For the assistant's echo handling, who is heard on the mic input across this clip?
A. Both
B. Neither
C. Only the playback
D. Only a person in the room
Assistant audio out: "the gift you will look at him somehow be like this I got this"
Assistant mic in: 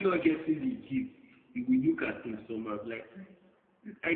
C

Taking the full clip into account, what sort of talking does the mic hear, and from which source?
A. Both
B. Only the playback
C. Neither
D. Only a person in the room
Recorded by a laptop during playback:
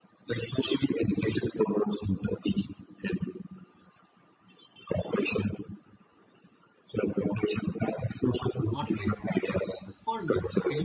A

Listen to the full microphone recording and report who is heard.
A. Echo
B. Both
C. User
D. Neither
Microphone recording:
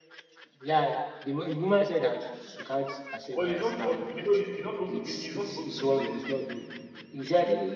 B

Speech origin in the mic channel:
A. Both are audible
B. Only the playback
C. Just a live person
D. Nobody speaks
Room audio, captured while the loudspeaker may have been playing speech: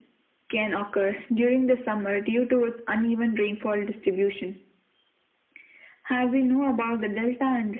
B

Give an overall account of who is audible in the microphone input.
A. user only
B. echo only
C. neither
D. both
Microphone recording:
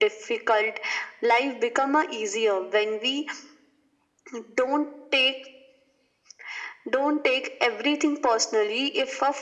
B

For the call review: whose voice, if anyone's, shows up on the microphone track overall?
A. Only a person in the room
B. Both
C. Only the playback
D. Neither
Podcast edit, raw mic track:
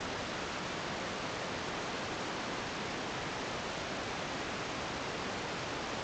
D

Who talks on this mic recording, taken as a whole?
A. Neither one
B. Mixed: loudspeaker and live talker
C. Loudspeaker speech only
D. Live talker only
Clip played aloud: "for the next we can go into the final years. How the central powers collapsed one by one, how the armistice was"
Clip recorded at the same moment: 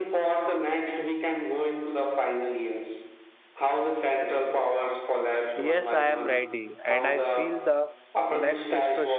B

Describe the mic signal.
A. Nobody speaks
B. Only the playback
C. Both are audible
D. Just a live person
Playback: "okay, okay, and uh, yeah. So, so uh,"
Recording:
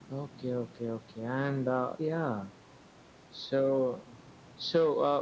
B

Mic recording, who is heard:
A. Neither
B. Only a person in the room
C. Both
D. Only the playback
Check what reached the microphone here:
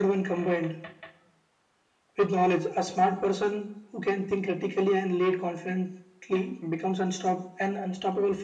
D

